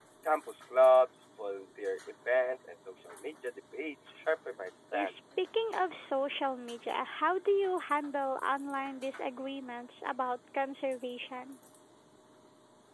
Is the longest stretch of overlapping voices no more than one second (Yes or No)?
Yes